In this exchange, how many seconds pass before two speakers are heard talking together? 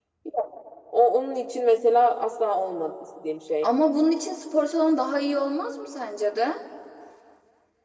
none

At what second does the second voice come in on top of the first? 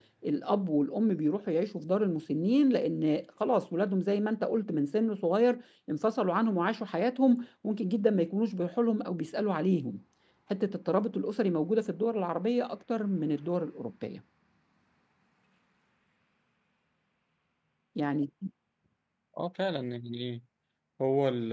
none

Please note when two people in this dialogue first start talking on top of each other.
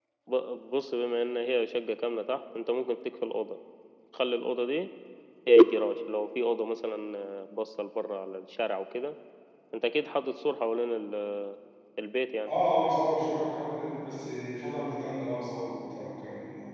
none

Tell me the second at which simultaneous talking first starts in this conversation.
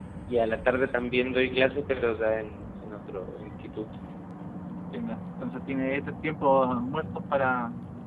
none

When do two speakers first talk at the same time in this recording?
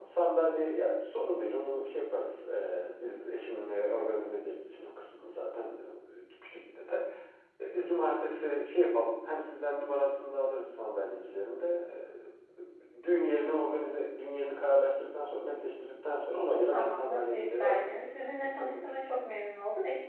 16.7 s

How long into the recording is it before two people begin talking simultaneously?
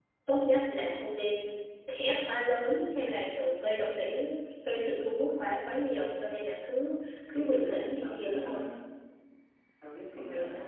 7.3 s

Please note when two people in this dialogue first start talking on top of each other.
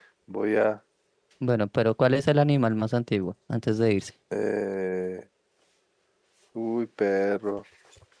none

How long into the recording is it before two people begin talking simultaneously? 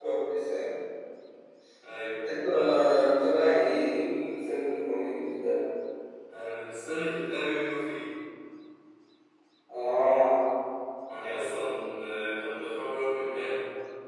none

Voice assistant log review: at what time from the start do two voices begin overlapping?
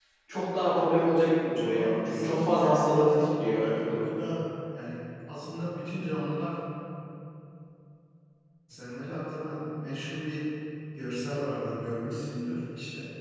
1.6 s

